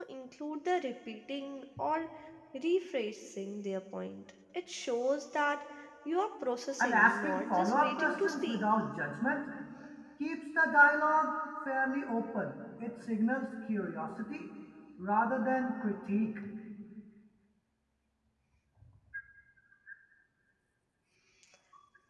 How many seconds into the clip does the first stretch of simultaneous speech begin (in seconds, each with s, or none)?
6.8 s